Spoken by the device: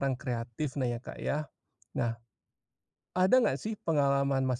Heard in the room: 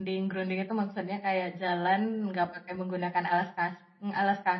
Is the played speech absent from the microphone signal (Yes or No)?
Yes